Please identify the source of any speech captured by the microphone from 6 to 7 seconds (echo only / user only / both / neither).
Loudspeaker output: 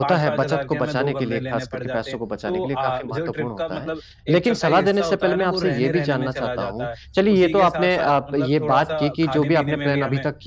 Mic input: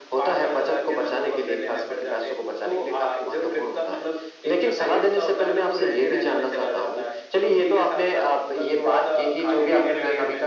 echo only